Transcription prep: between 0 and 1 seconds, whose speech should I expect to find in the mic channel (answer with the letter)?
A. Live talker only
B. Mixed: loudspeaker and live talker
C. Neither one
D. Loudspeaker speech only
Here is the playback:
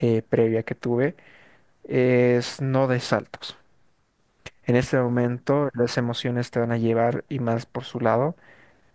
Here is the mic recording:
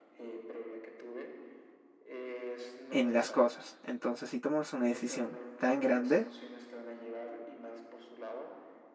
D